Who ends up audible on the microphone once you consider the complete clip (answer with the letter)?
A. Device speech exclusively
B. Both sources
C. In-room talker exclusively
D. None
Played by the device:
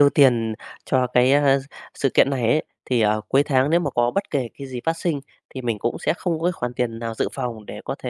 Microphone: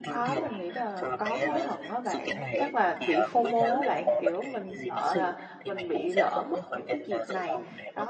B